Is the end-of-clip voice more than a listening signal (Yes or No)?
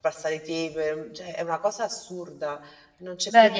Yes